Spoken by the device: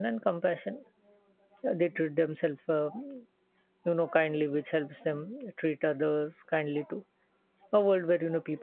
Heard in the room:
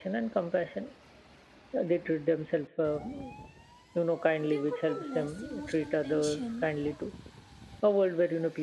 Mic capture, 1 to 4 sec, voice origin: echo only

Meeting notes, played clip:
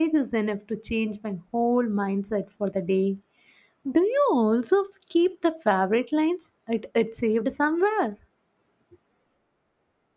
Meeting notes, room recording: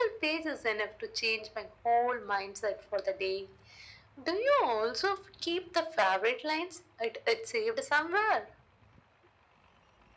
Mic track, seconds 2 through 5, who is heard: echo only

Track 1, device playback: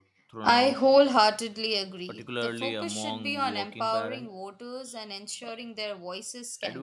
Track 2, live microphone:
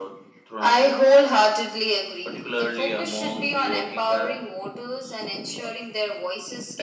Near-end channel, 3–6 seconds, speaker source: echo only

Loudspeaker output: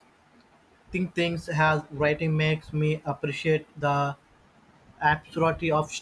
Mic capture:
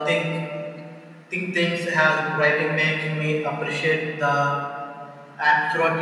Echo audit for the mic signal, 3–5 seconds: echo only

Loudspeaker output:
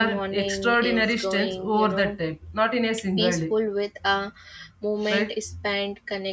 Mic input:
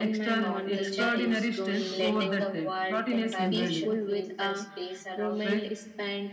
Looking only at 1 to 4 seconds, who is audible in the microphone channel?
both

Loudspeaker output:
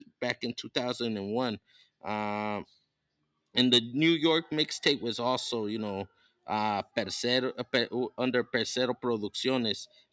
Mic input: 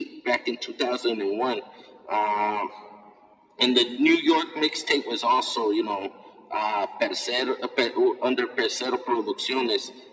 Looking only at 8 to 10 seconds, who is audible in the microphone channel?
echo only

